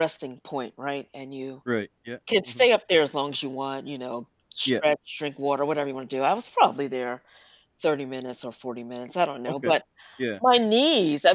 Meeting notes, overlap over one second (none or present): none